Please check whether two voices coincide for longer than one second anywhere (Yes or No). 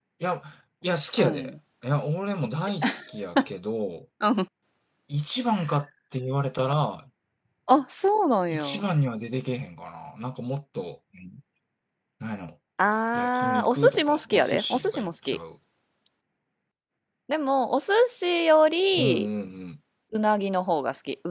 Yes